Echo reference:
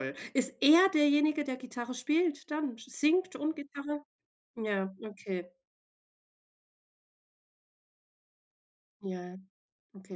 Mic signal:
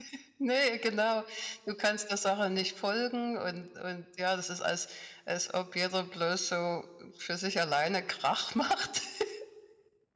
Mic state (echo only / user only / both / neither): user only